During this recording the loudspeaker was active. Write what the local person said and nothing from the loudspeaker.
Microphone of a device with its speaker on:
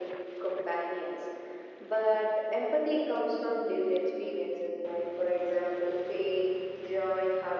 none

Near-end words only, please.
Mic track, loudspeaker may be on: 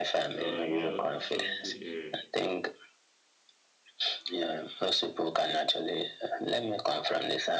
So you know subtle uh,

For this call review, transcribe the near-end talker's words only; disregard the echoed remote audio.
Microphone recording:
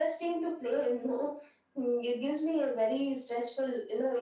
none

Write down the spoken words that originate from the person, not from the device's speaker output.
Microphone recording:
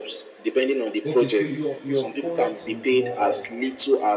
Okay, so your your forex is more of

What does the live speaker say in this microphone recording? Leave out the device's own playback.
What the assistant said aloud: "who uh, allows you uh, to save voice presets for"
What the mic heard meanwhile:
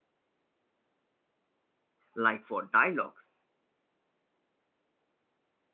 like for dialogues

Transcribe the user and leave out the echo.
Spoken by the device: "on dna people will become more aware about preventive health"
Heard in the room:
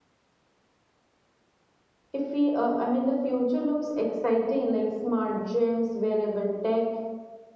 if we uh, i mean the future looks exciting like smart gyms wearable tech

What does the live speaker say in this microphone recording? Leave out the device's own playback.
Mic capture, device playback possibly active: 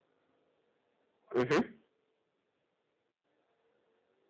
Mm-hmm.

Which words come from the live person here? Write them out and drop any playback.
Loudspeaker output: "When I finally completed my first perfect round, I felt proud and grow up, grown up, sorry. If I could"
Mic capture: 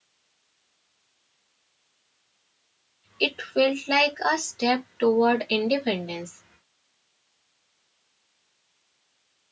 it felt like a step toward independence.

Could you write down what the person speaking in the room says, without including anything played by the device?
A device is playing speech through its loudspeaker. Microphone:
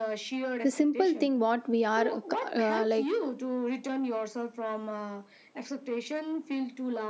the simple thing what we are uh, like

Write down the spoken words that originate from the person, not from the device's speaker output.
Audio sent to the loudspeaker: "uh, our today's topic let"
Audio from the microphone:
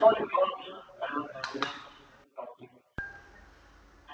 none

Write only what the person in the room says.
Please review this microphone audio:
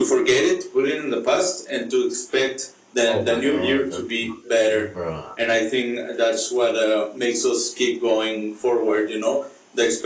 Oh my god, that's not me, bro.

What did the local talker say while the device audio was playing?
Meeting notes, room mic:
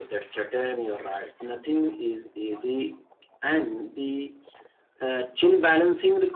none

